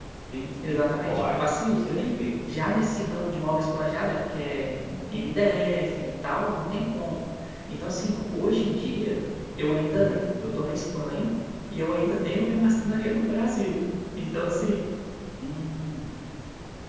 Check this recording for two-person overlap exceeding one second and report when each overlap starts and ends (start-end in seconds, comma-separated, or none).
0.7-1.9